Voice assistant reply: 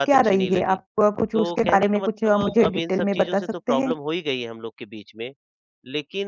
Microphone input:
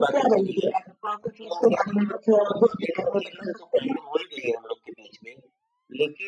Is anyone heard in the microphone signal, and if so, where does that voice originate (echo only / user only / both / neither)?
echo only